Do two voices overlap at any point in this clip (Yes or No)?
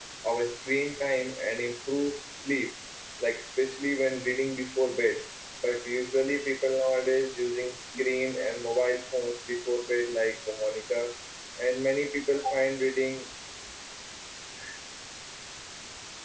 No